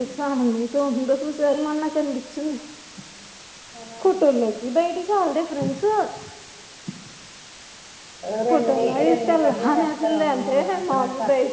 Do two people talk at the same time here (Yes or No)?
Yes